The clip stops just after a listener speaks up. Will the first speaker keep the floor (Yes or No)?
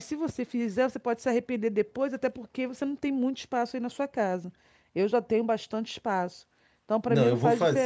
No